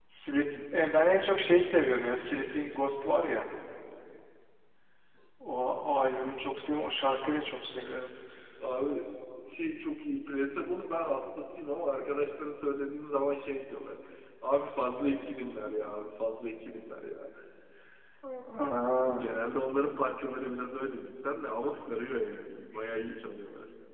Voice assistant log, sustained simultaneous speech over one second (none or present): none